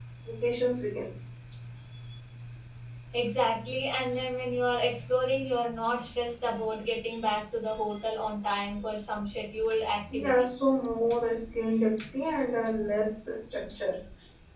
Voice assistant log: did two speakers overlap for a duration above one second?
No

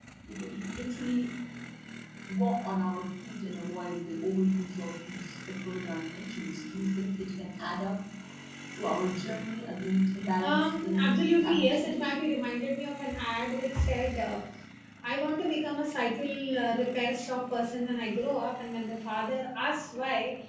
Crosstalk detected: Yes, from 10.4 s

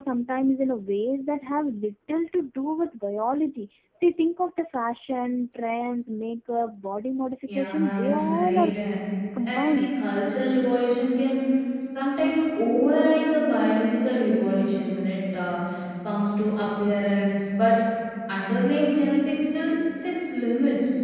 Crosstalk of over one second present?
Yes, from 7.5 s

